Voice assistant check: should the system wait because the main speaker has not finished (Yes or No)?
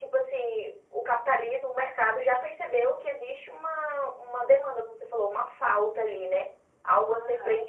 Yes